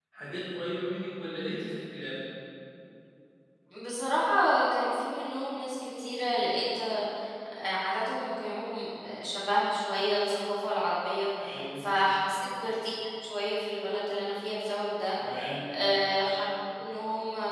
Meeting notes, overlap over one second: none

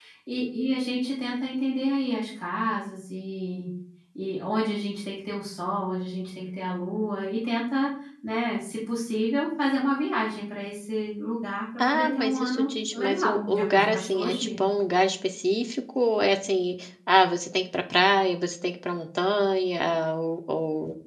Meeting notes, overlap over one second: present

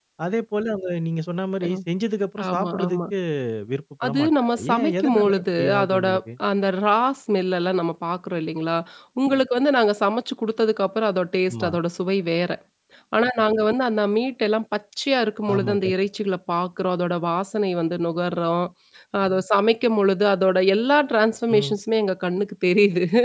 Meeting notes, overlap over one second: present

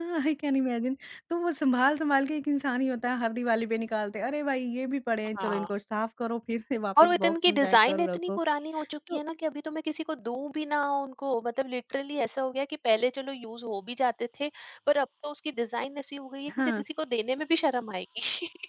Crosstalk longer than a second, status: present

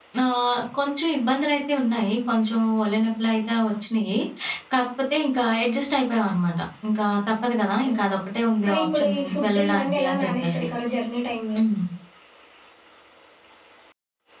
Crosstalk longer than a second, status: present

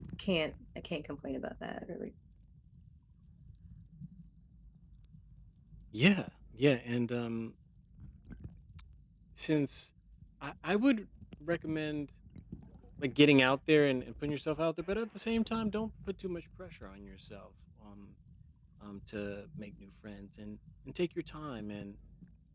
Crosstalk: none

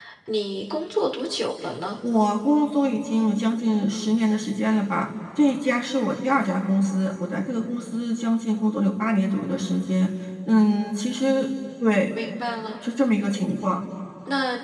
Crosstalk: none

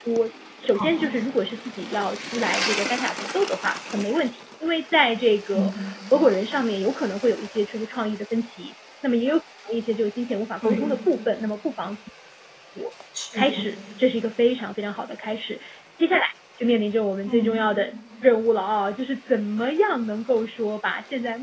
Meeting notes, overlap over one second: none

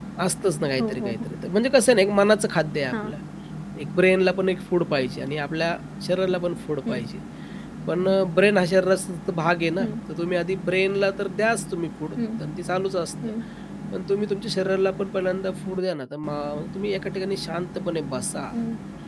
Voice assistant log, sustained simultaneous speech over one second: none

